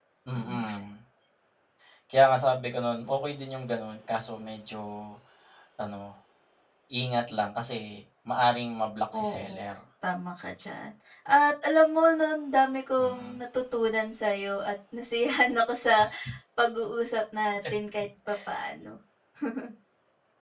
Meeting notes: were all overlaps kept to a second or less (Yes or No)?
Yes